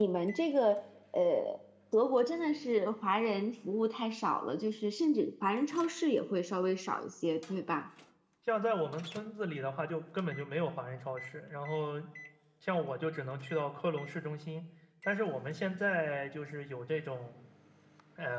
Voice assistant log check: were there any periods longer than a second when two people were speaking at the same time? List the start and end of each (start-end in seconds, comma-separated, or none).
none